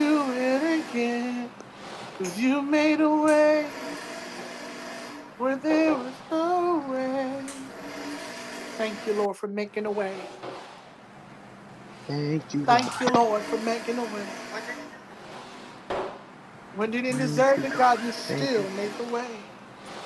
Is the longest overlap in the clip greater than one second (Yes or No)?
Yes